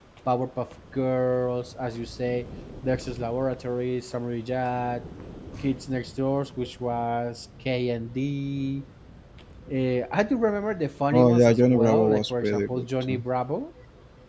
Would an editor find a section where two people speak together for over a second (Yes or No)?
Yes